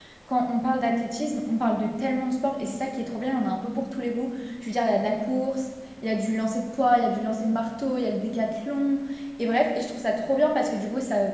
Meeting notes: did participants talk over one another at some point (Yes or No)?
No